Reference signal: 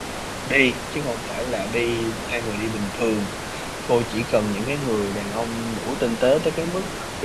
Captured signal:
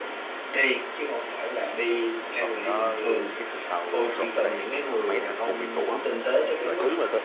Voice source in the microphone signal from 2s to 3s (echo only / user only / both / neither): both